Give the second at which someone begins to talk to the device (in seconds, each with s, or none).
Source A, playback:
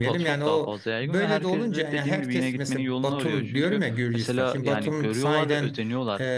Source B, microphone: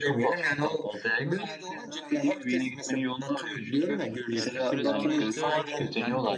4.3 s